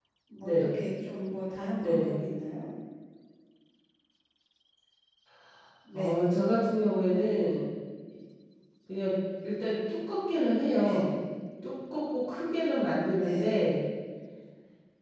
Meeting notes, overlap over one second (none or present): none